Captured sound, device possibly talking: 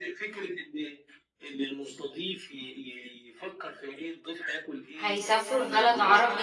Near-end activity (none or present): present